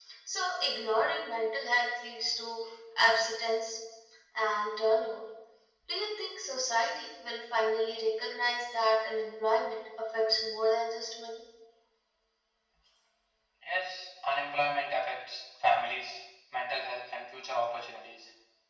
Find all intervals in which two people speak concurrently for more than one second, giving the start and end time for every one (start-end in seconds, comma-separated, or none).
none